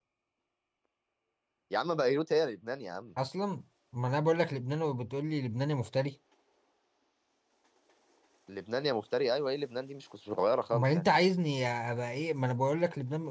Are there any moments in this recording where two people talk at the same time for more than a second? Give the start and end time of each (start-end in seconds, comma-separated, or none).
none